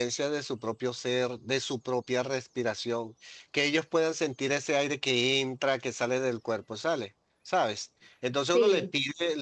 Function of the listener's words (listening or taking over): listening